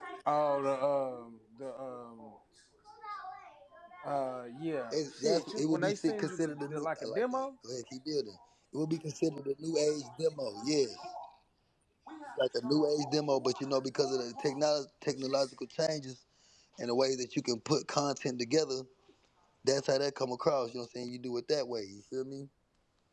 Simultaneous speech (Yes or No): Yes